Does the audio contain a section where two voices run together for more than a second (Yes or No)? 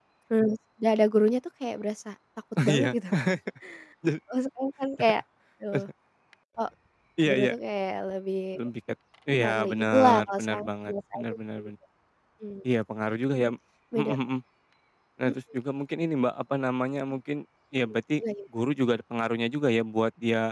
Yes